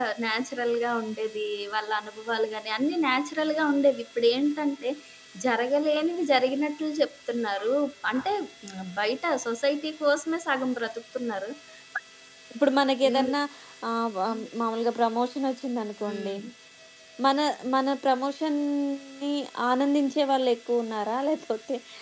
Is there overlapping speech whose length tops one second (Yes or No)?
No